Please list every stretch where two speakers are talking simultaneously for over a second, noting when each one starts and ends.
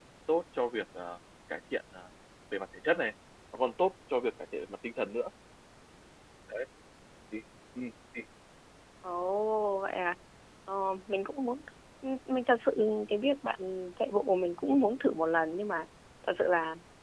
none

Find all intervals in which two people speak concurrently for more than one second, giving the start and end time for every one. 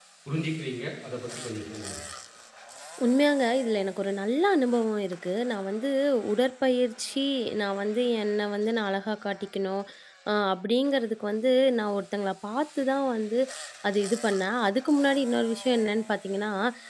none

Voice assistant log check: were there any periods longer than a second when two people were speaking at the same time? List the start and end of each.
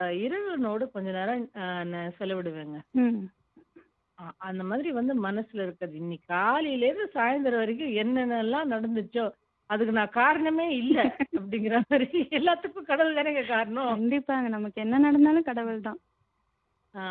none

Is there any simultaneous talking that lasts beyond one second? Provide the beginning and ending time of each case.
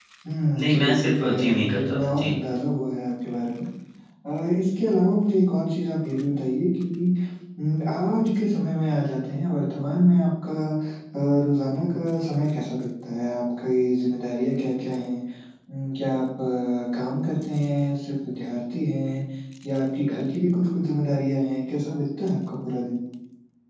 0.6-2.3

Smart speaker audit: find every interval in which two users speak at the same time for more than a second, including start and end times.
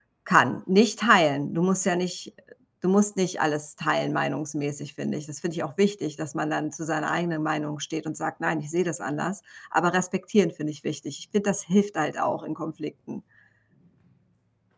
none

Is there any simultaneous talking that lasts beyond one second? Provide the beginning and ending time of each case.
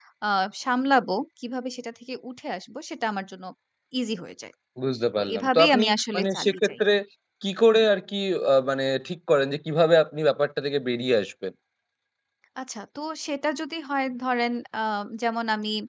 5.2-6.7

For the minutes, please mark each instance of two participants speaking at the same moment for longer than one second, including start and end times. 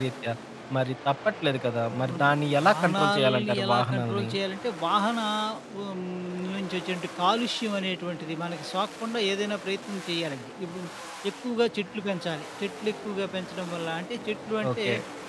2.7-4.3

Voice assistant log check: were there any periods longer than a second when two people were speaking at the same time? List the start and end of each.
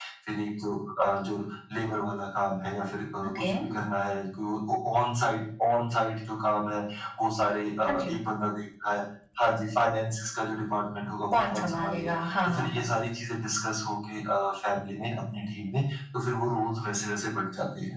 11.3-12.8

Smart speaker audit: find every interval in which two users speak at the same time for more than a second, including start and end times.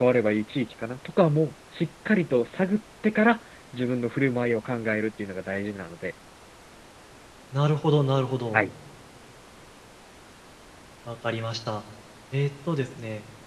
none

